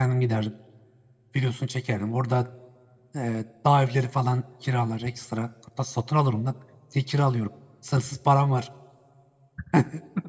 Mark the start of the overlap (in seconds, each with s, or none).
none